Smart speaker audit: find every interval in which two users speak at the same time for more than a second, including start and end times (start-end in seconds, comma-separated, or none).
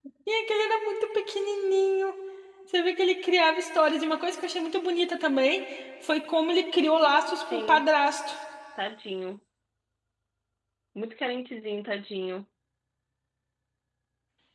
none